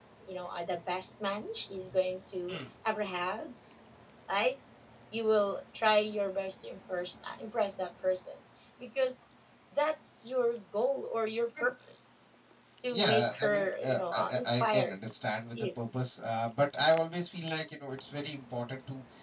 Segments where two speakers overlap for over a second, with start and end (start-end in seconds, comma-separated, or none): 12.9-14.9